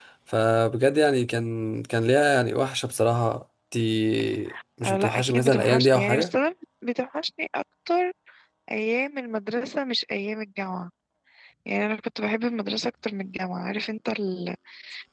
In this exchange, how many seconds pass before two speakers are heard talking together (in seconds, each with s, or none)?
4.8 s